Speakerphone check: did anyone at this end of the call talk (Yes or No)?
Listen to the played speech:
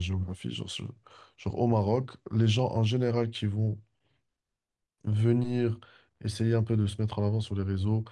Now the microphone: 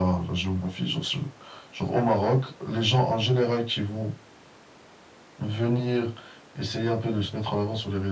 No